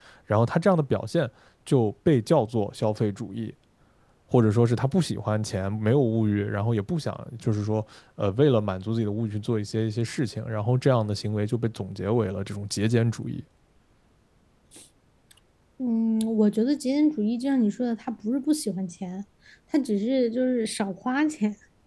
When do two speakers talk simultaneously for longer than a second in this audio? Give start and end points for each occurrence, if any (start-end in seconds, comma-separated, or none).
none